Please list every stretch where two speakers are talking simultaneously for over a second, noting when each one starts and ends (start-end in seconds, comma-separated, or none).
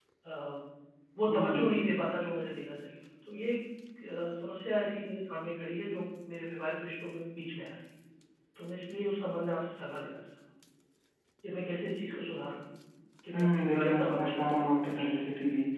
13.3-15.1